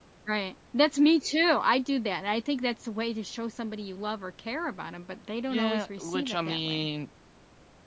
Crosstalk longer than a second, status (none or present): present